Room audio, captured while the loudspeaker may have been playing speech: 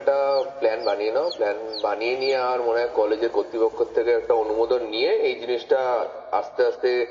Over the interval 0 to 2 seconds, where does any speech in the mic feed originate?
echo only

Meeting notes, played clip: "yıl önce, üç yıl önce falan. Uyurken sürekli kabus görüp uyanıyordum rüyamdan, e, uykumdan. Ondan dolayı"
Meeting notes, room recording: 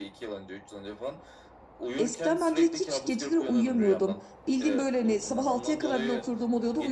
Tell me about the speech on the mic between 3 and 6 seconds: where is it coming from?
both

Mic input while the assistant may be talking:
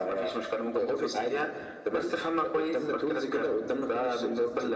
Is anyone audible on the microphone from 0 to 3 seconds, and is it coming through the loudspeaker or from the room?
echo only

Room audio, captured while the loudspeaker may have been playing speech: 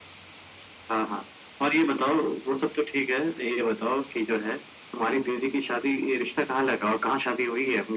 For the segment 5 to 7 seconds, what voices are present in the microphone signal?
echo only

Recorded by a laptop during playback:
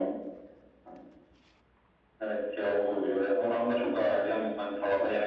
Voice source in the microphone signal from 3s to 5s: echo only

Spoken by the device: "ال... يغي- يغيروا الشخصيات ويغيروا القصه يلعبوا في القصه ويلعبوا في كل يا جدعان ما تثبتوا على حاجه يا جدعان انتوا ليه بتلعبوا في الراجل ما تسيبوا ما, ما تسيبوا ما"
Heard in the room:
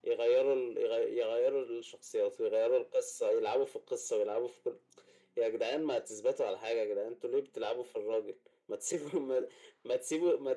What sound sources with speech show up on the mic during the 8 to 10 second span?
echo only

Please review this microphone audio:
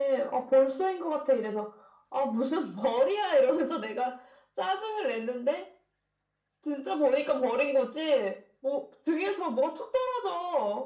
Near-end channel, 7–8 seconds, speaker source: echo only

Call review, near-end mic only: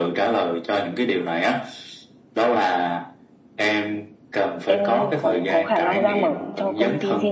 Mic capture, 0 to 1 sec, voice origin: echo only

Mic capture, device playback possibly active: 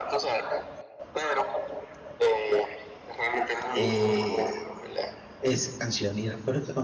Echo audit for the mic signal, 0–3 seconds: echo only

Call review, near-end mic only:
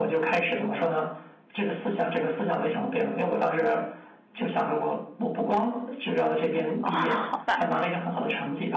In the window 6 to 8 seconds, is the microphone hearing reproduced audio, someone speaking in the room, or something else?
both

